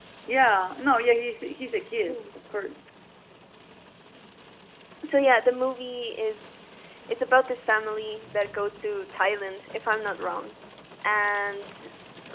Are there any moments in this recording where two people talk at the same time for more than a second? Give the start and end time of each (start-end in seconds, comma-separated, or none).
none